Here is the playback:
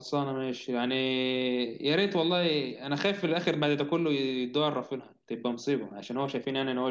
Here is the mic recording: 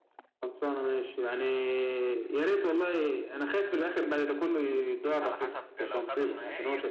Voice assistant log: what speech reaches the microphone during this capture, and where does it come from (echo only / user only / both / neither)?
both